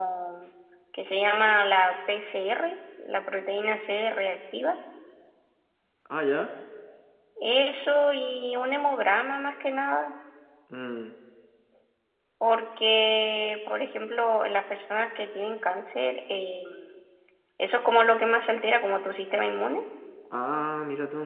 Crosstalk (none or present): none